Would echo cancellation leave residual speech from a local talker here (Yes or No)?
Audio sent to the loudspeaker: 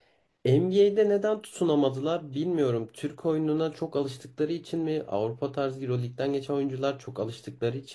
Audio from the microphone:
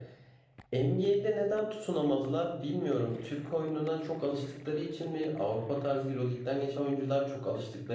No